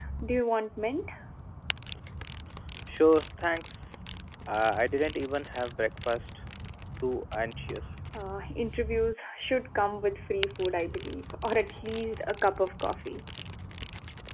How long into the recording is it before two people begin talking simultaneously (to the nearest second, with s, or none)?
none